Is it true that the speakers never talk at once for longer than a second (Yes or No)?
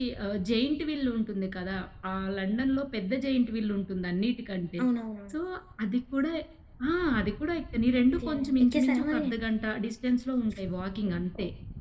No